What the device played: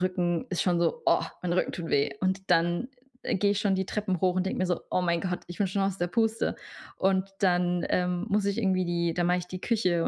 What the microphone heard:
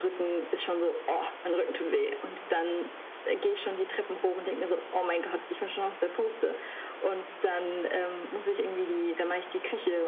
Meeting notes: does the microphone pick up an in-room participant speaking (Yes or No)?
No